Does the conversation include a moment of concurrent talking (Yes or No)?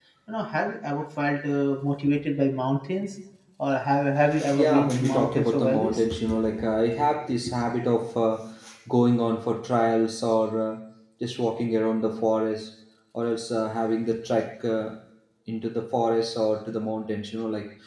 Yes